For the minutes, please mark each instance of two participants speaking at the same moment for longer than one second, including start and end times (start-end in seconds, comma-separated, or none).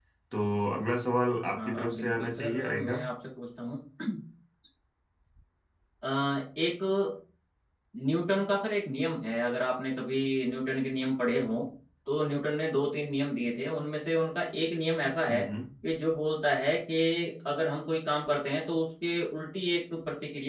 1.6-3.0